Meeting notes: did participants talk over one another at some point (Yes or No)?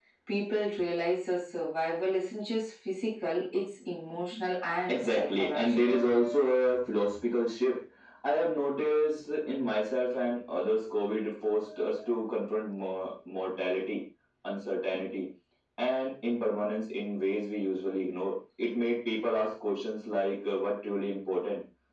Yes